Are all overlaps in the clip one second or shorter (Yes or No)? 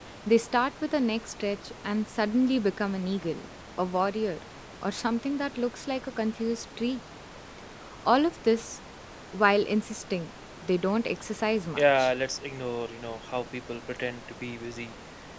Yes